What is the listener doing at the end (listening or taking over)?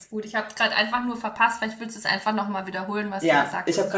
taking over